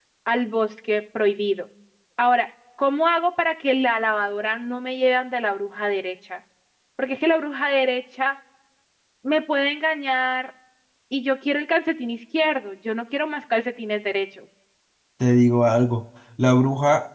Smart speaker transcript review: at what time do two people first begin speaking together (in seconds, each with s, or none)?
none